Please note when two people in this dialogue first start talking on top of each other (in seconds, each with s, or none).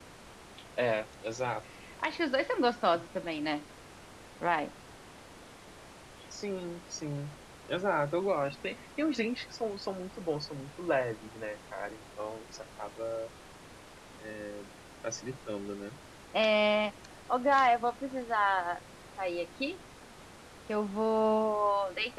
none